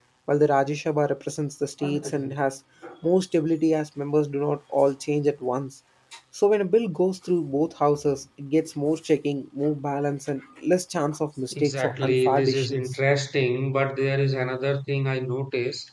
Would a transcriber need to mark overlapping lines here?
Yes, from 11.5 s

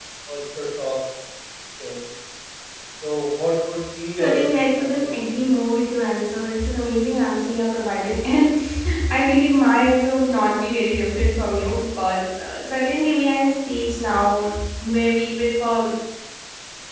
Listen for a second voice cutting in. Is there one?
Yes, from 4.2 s

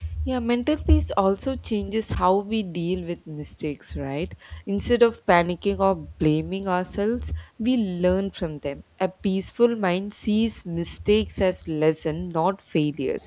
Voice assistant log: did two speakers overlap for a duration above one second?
No

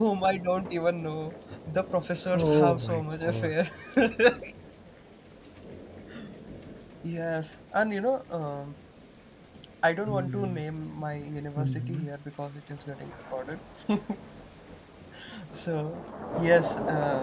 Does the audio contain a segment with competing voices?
Yes, from 2.3 s

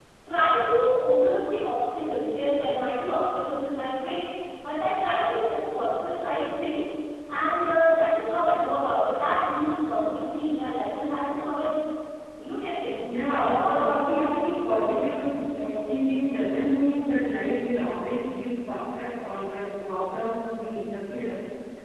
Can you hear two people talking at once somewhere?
Yes, from 13.0 s

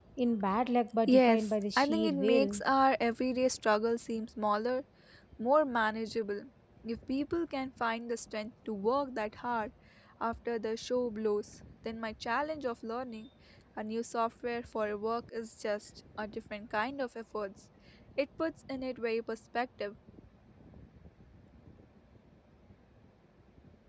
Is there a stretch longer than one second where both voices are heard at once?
Yes, from 1.1 s

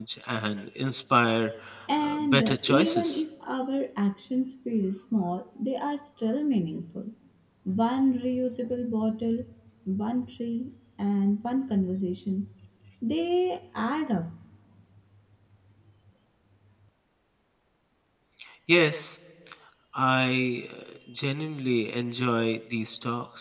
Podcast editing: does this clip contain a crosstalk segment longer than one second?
Yes, from 2.0 s

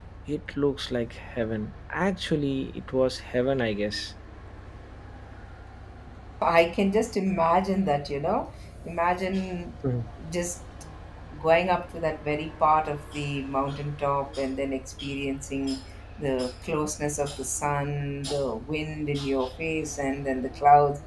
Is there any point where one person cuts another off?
No

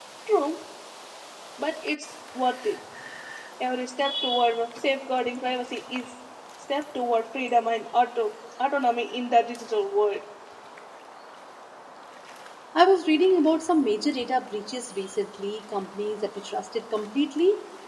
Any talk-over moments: No

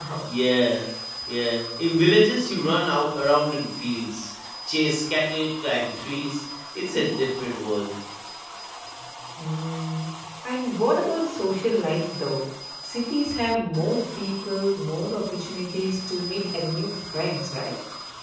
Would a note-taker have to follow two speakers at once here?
No

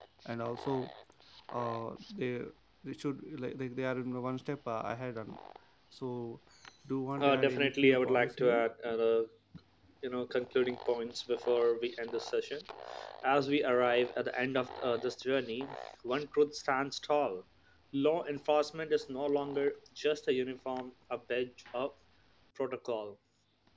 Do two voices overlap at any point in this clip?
Yes, from 7.2 s

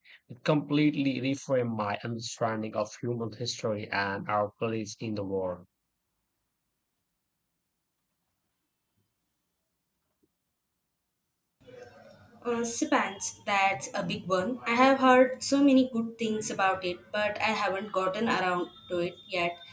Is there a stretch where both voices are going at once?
No

